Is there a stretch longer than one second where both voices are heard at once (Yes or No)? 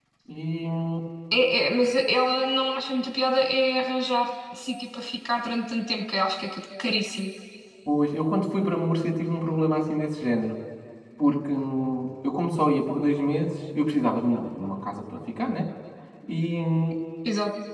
No